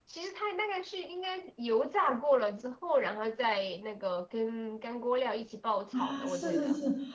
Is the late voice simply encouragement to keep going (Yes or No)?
No